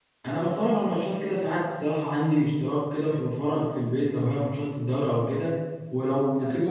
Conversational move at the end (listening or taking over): listening